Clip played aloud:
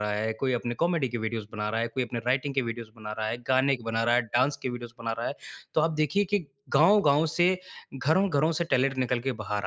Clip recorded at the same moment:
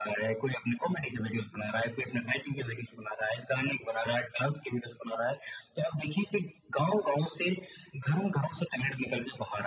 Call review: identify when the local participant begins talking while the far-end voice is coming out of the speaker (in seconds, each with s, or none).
none